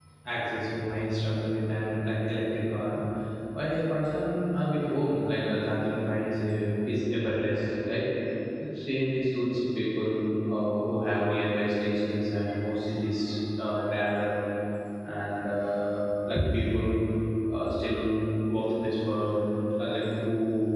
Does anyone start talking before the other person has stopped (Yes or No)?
No